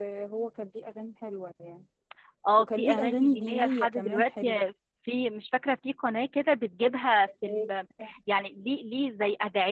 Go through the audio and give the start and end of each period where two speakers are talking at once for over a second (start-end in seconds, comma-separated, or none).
2.6-4.6